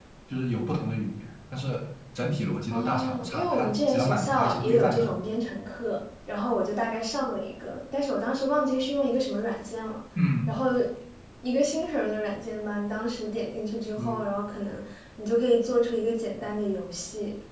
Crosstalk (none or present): present